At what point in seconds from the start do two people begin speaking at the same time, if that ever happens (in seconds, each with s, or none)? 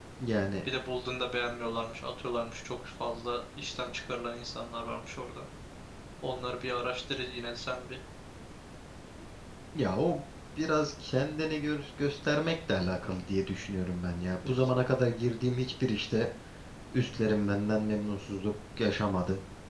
none